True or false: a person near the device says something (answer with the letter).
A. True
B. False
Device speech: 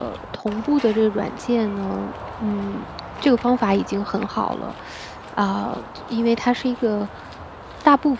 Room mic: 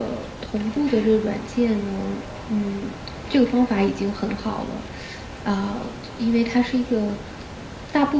B